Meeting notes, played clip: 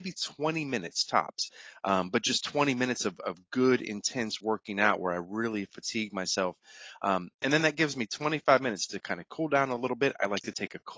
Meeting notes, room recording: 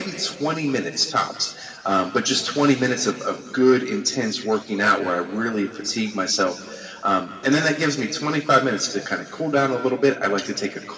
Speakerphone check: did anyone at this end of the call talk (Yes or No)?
No